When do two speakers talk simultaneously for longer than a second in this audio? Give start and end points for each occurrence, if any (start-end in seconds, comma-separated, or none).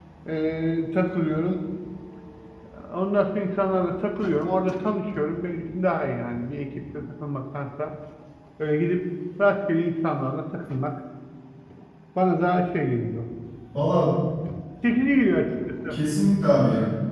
none